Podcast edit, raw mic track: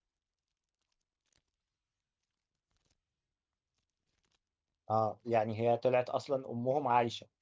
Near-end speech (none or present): present